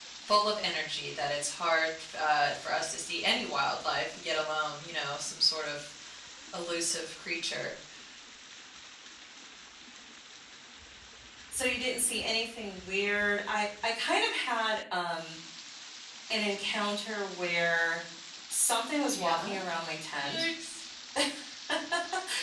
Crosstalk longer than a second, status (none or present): none